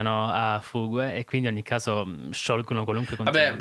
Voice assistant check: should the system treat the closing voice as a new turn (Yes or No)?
Yes